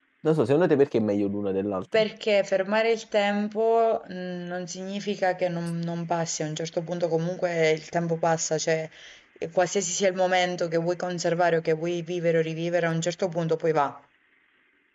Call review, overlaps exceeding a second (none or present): none